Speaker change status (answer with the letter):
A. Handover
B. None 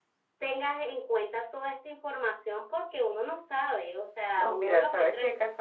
A